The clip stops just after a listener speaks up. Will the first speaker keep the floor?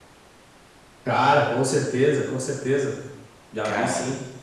Yes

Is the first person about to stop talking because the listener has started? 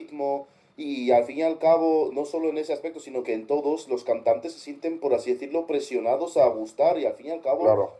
No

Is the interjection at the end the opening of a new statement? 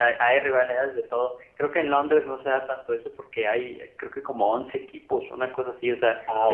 No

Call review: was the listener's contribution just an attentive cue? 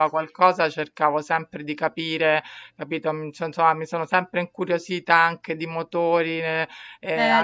Yes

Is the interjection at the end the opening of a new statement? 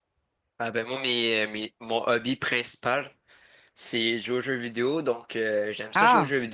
No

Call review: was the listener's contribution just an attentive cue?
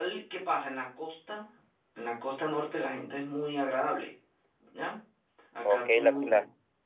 No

